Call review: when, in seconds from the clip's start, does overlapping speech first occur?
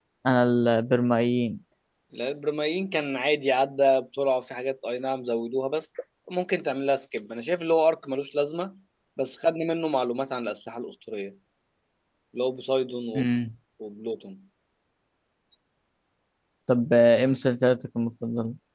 none

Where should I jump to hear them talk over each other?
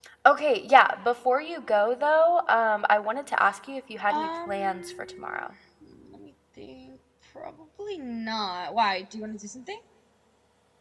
4.1 s

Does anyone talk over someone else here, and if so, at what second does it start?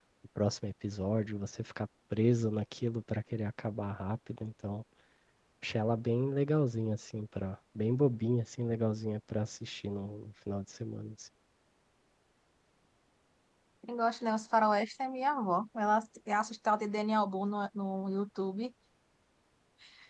none

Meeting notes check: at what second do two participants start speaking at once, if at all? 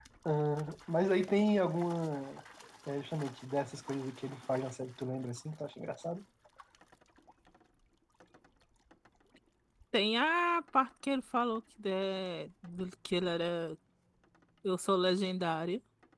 none

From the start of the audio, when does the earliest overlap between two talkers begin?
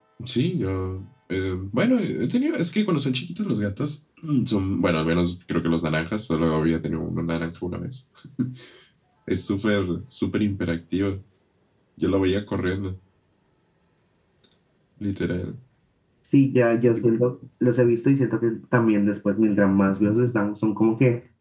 none

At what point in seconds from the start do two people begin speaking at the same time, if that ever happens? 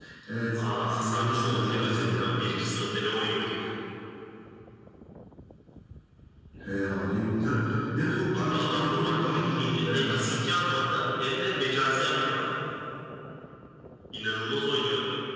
0.9 s

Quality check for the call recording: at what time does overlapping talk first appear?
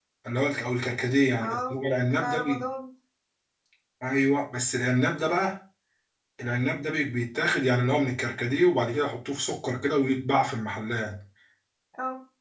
1.4 s

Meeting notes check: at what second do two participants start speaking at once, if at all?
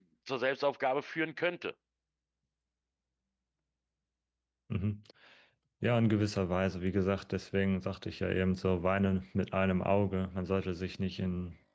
none

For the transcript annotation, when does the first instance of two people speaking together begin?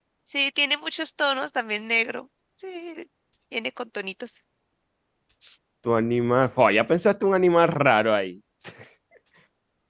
none

